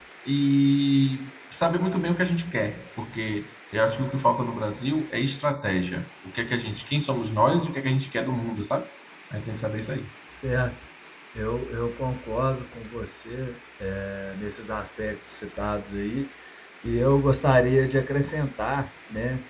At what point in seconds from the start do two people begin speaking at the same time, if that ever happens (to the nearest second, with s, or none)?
none